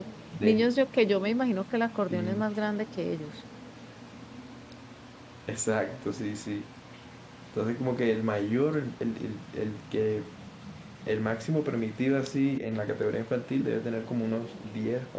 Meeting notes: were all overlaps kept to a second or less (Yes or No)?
Yes